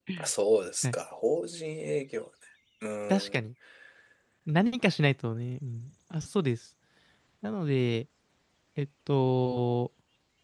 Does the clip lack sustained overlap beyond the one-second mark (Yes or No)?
Yes